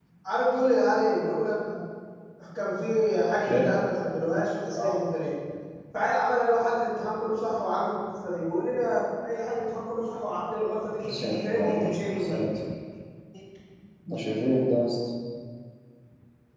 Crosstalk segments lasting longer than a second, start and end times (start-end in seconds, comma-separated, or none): 11.0-12.5